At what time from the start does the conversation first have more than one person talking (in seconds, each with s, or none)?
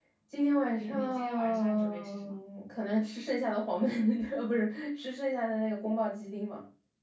0.7 s